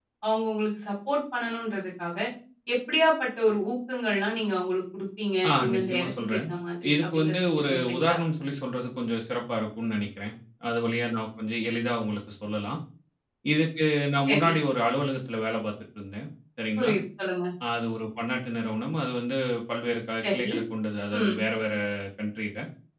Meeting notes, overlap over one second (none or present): present